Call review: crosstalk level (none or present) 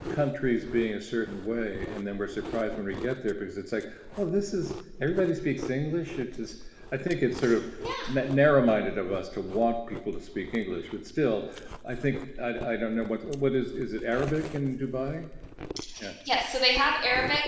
none